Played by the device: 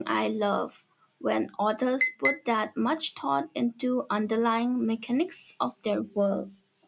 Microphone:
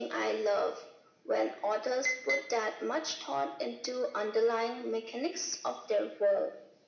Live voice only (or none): none